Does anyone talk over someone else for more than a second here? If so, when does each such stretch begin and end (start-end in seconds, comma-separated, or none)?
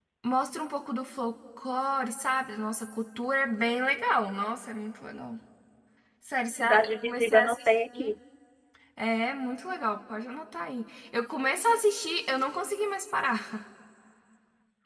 6.4-8.2